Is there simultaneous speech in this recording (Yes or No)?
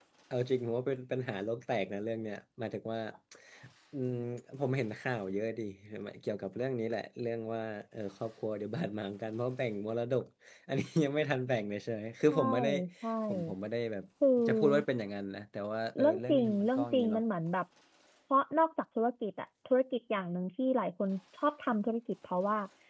Yes